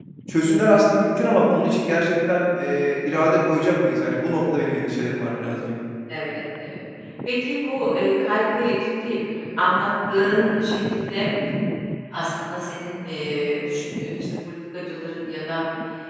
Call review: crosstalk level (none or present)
none